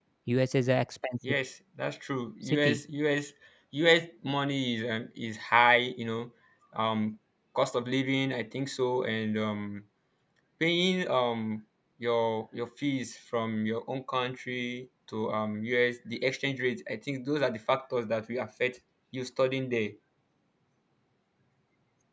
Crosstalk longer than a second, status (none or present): none